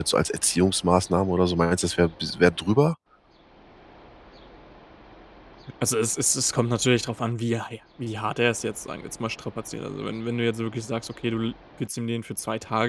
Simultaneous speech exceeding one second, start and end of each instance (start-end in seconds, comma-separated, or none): none